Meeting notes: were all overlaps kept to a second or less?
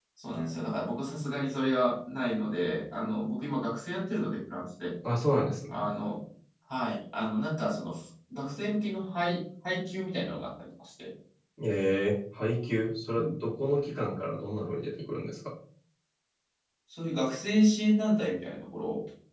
Yes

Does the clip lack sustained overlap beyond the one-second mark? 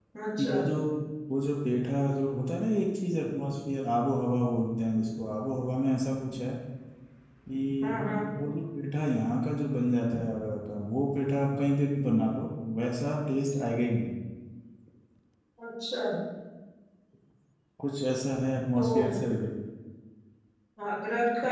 Yes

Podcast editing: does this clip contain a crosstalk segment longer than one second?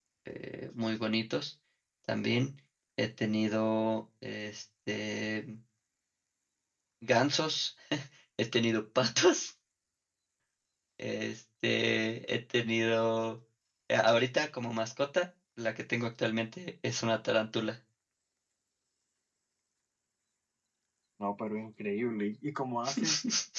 No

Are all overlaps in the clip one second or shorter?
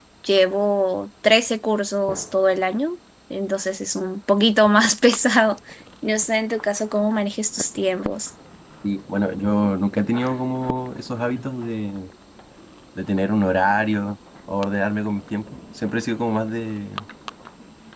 Yes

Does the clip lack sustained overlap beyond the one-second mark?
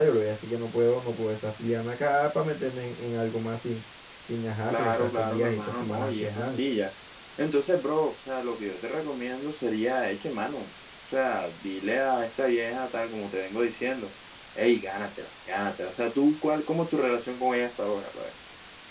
No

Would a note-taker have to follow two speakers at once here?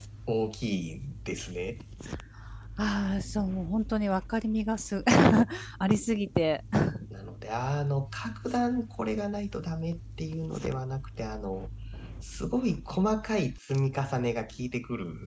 No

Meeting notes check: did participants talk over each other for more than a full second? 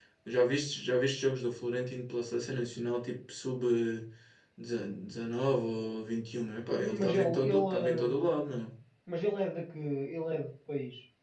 Yes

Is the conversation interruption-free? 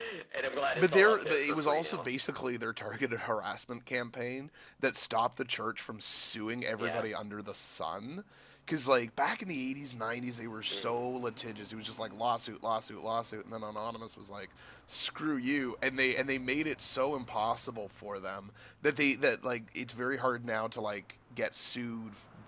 No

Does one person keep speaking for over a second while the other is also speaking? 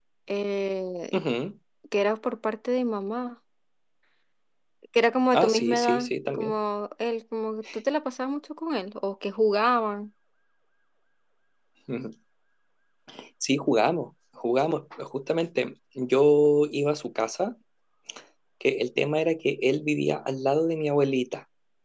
Yes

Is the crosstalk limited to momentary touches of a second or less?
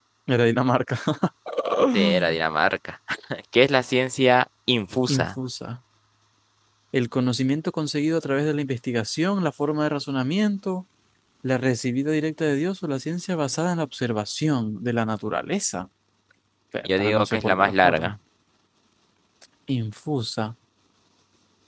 No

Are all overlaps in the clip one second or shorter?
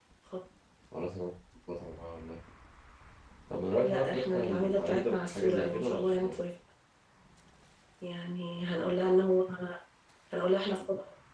No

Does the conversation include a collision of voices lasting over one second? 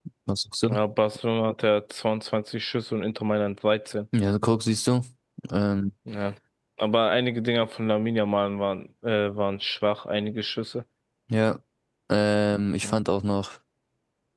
No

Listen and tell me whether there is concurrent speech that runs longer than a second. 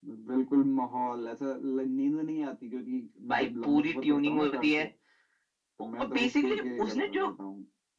Yes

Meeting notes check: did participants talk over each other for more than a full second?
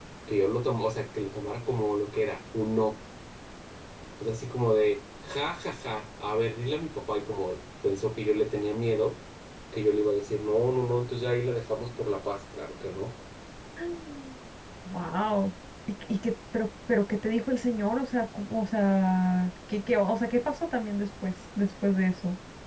No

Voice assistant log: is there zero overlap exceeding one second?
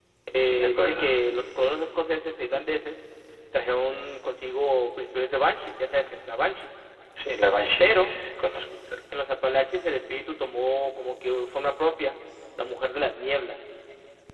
Yes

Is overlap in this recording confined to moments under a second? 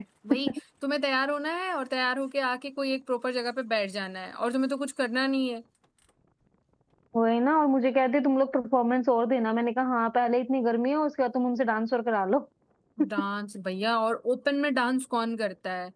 Yes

